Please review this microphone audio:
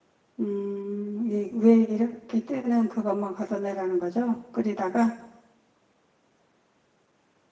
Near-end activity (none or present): present